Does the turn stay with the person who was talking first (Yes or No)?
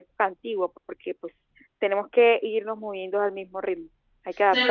No